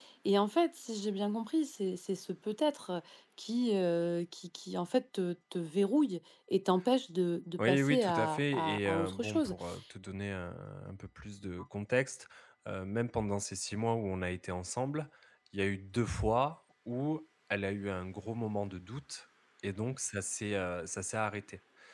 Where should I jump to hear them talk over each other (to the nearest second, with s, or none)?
8 s